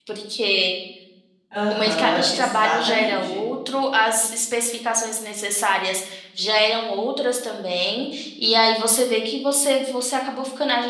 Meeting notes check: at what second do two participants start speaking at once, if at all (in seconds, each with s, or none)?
1.7 s